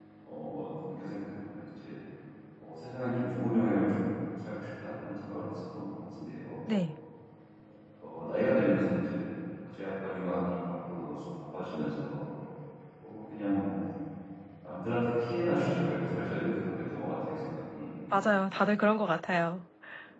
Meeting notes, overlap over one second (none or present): none